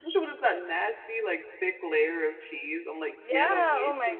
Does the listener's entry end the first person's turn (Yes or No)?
Yes